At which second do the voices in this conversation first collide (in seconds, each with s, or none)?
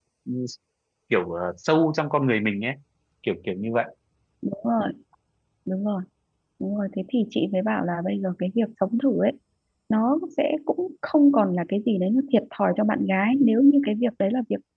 none